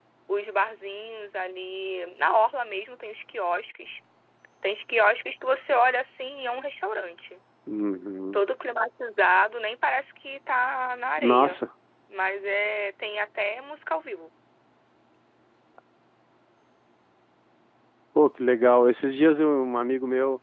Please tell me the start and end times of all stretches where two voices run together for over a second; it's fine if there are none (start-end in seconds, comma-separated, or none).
none